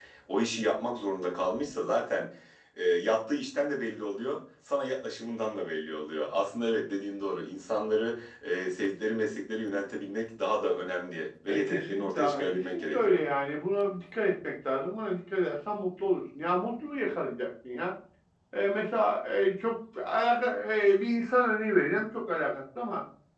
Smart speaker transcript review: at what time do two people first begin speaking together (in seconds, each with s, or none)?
11.5 s